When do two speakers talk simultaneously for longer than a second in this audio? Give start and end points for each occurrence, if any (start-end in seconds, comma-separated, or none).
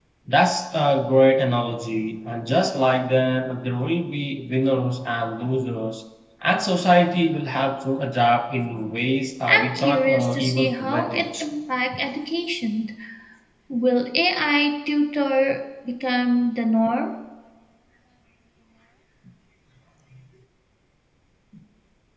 9.5-11.4